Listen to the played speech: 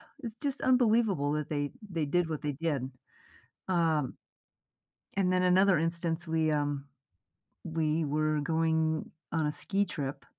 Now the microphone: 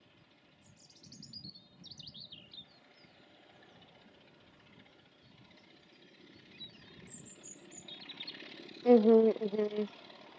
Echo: none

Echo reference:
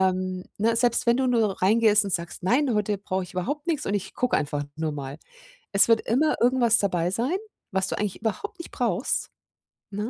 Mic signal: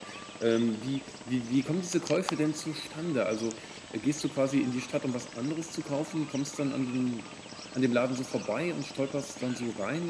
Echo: none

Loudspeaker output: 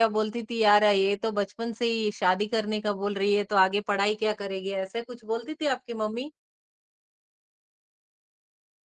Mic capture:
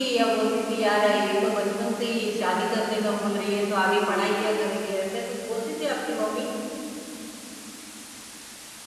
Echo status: present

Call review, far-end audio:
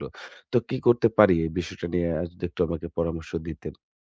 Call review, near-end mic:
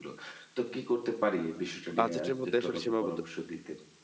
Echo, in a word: present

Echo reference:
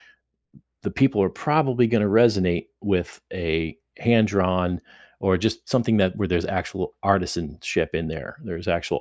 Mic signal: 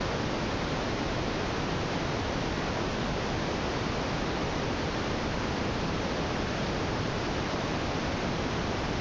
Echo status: none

